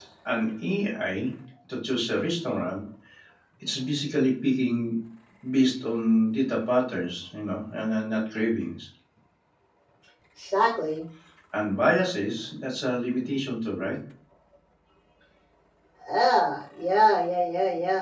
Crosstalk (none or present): none